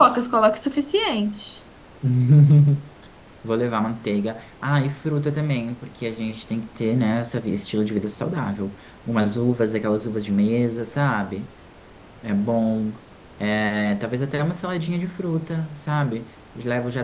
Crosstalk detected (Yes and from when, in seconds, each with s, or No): No